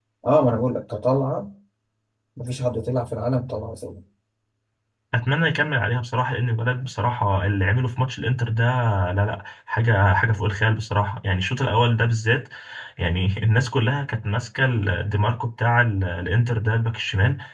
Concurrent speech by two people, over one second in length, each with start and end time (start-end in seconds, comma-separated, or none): none